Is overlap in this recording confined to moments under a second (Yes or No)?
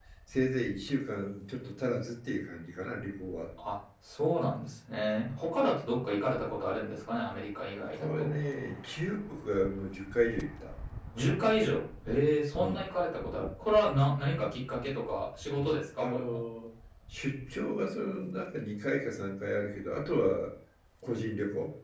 Yes